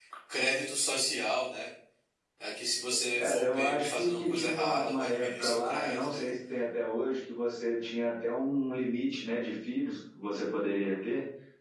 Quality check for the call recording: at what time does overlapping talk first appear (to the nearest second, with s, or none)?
3 s